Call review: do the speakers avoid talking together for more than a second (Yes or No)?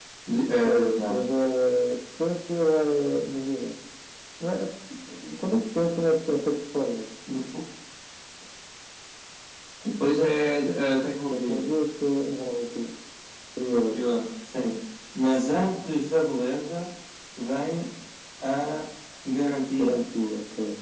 Yes